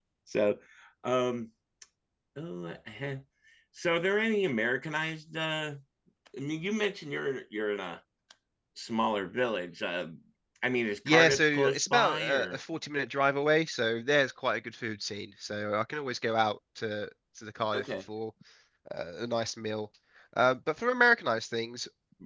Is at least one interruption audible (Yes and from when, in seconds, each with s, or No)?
Yes, from 11.1 s